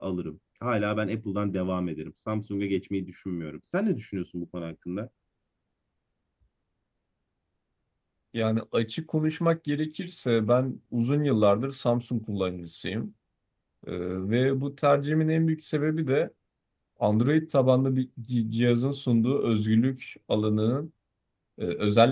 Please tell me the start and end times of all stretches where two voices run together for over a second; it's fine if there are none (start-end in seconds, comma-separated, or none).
none